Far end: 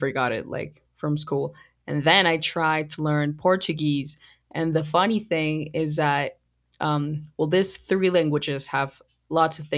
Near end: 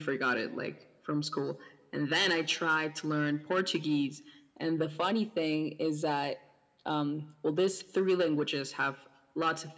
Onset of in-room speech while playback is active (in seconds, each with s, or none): none